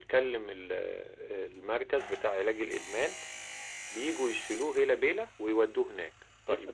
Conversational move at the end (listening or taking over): taking over